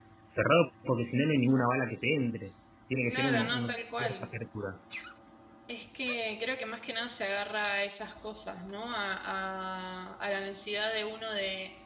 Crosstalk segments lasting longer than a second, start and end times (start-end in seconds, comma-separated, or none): 3.0-4.3